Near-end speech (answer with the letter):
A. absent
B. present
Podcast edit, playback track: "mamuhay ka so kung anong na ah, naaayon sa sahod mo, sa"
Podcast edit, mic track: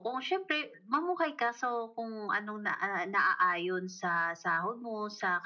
A